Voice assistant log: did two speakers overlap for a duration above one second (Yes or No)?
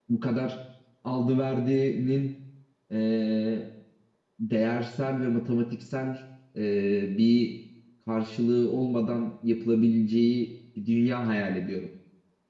No